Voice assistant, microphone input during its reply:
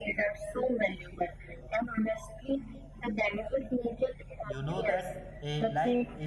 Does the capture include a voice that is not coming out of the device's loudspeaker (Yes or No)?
Yes